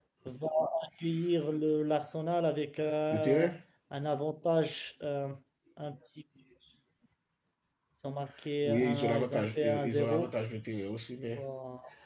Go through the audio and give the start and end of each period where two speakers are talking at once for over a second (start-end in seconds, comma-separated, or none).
8.6-10.3